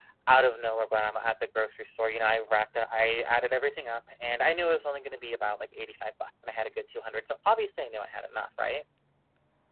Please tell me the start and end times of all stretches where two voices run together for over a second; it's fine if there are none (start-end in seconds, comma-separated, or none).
none